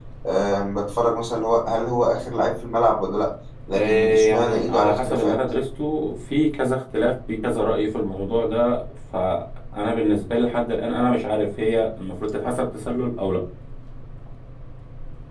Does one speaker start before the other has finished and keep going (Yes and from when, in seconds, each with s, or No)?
Yes, from 3.7 s